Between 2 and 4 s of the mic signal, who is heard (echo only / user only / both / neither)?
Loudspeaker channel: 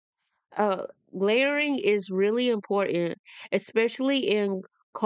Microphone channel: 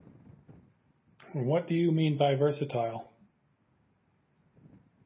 user only